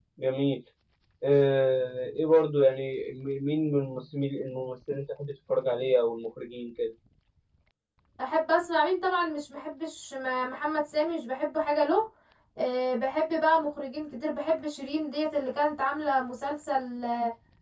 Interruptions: none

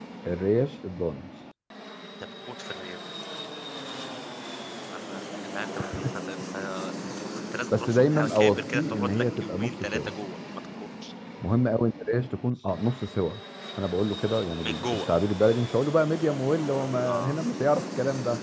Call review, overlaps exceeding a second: present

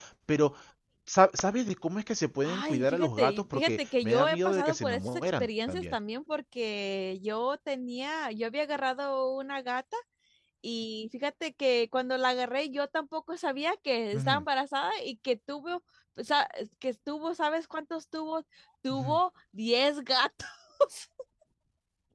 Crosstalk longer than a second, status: present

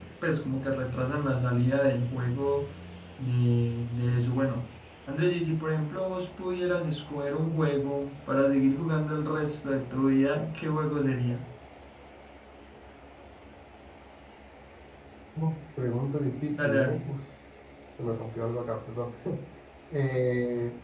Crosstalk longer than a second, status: none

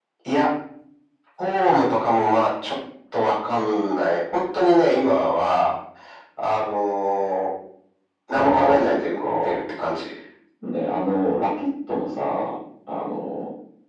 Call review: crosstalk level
present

